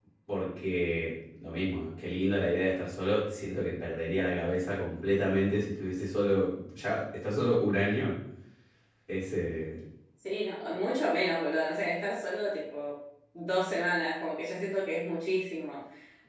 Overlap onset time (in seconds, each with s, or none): none